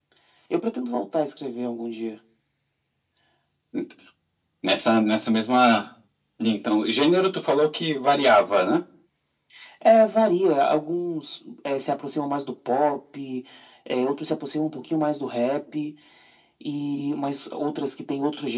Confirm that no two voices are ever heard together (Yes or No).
Yes